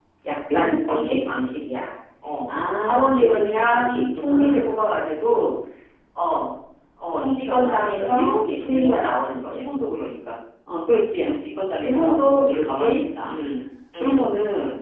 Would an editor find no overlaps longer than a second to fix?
No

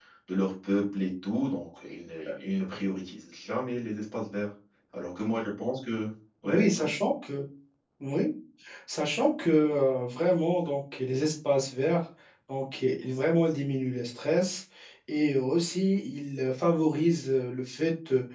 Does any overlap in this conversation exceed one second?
No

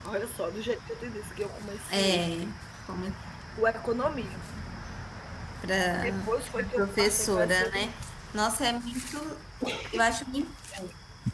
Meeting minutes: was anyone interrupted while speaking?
Yes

